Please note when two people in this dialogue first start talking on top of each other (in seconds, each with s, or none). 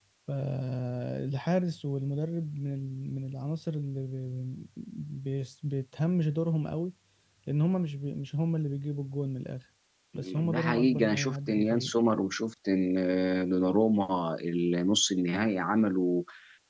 10.4 s